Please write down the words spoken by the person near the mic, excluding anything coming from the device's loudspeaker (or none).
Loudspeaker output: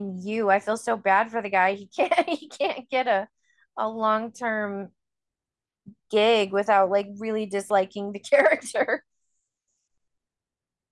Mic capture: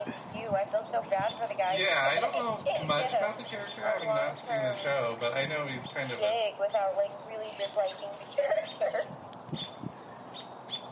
Yeah, I don't know much about the character having not seen the show, but I know he's kind of a.